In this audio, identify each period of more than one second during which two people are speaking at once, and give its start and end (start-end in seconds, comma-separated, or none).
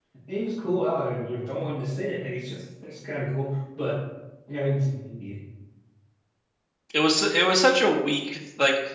none